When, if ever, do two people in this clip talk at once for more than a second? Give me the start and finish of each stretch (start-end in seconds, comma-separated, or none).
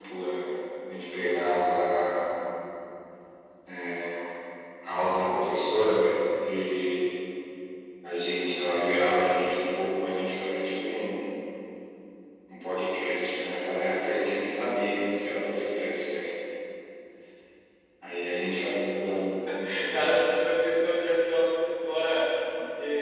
none